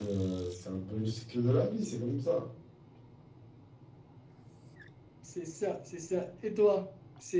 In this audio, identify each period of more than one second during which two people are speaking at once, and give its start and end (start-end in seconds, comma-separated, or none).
none